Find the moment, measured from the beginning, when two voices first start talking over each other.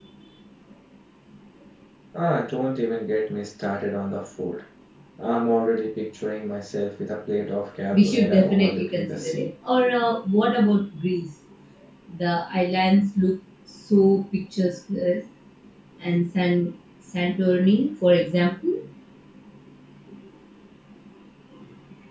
7.9 s

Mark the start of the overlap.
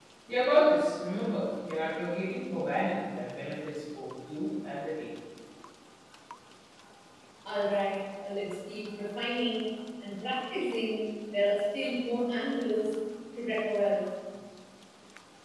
none

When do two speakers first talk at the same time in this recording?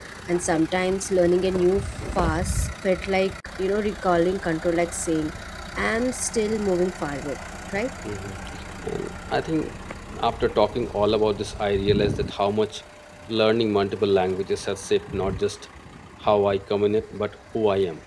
none

